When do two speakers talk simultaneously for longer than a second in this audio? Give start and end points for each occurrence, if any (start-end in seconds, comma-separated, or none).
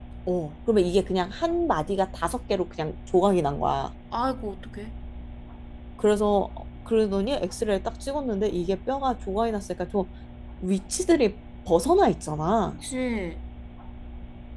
none